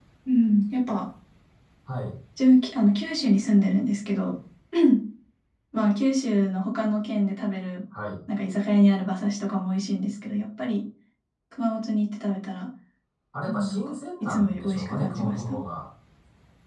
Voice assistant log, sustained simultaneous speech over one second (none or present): present